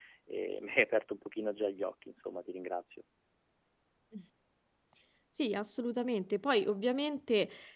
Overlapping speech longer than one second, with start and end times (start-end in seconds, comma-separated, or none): none